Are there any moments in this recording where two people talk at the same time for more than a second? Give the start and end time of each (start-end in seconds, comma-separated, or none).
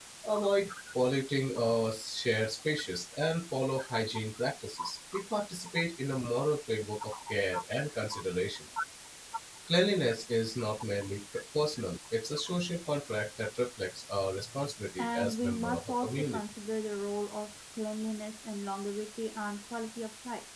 15.0-16.4